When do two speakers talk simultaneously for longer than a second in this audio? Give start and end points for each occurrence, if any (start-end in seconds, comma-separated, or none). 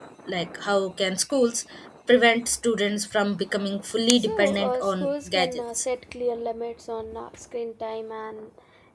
4.2-5.8